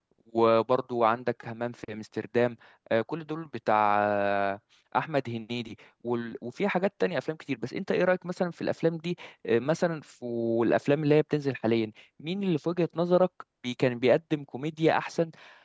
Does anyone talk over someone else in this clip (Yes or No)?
No